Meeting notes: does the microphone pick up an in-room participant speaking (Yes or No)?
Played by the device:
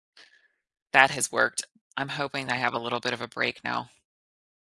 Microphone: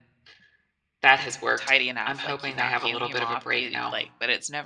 Yes